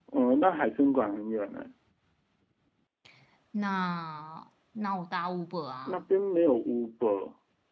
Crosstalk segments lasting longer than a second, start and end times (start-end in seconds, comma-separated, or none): none